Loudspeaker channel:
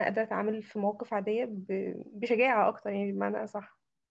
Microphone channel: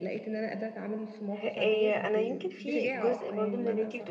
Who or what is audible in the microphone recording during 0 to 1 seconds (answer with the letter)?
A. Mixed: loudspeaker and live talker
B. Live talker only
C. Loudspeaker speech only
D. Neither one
C